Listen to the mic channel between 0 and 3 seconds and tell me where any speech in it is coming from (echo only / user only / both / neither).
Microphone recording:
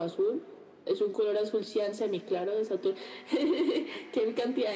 echo only